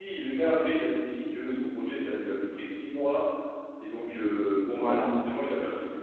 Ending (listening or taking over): listening